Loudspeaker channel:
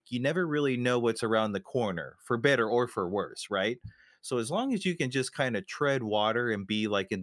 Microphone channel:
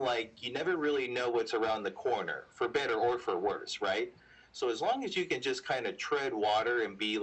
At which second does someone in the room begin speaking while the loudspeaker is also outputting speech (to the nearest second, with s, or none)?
none